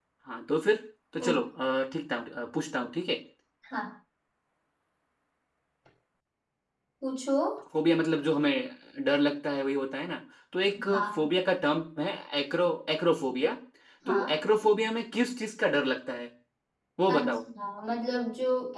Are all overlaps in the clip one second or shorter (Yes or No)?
Yes